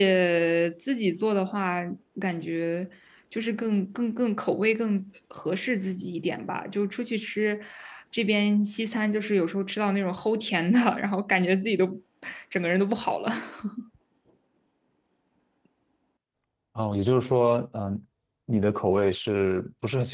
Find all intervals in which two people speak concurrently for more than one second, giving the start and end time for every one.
none

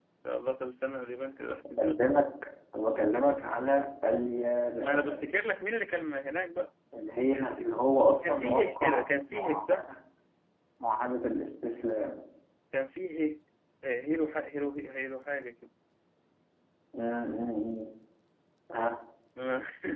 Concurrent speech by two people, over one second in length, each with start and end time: 8.3-9.9

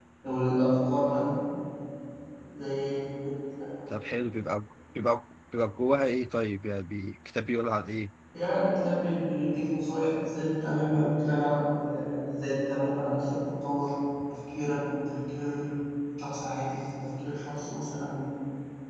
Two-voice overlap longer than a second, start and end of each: none

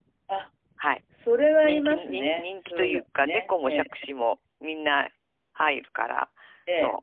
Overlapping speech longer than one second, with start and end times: 1.6-3.8

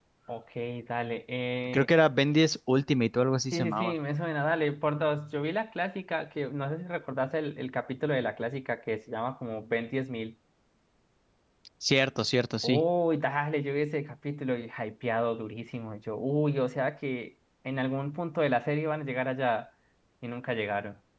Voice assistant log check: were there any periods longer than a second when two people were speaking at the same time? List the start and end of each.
none

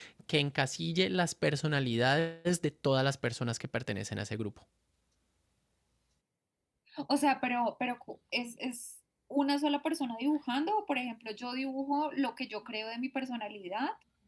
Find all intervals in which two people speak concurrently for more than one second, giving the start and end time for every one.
none

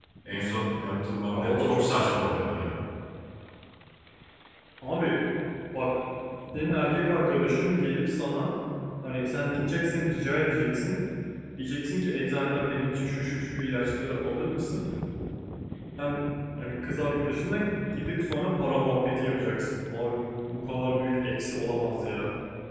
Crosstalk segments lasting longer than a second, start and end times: 1.3-2.6

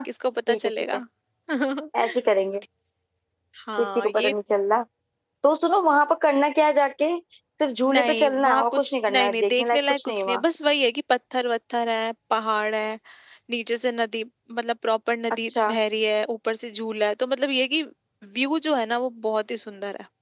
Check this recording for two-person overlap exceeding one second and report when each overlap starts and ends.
7.9-10.4

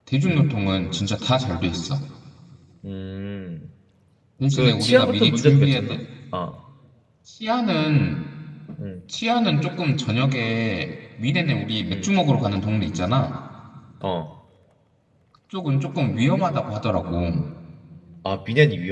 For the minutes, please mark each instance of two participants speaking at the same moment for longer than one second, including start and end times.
4.6-6.0

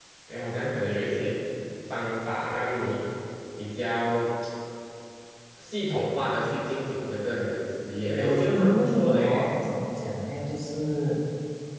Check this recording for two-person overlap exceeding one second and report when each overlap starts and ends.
8.1-9.5

